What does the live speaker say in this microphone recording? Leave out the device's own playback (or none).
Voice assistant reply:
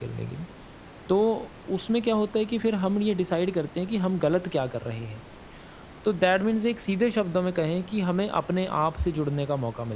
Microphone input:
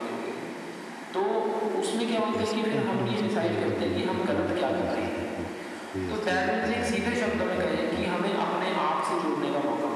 तो कैसे कॉन्फिडेंस अपने अंदर बिल्ड करते हो कि जैसे देखो कोई ऐसी जगह है जहाँ पे बिल्कुल